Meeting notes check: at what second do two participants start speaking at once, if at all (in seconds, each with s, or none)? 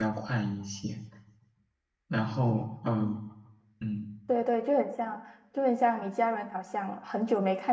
none